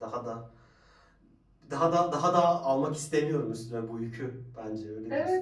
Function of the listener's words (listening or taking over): taking over